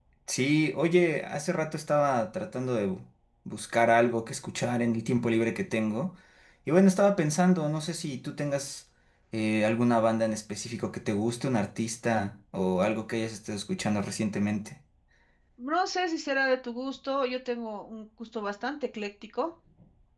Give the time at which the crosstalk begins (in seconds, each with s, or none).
none